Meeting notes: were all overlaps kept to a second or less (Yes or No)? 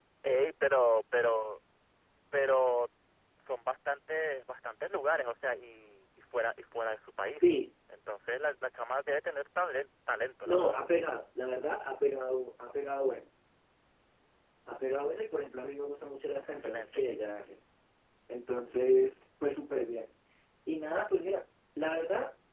Yes